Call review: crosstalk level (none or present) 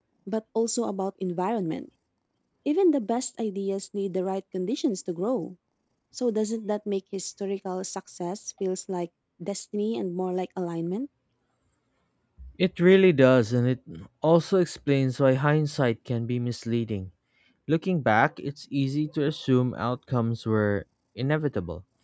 none